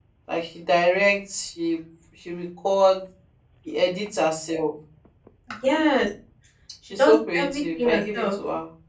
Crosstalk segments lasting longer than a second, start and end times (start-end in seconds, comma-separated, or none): 7.0-8.4